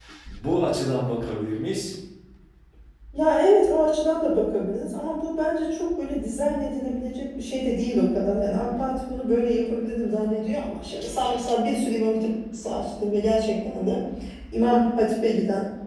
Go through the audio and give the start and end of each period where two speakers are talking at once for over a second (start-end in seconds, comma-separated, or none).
none